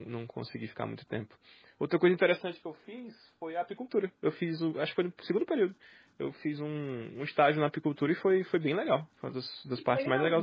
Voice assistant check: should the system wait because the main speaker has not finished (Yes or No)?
No